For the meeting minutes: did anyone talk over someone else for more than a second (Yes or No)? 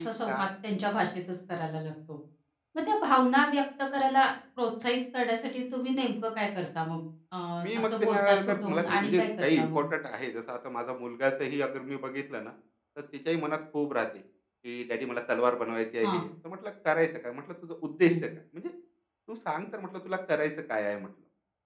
Yes